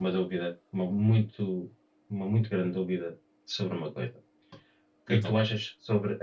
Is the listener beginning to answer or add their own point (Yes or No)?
No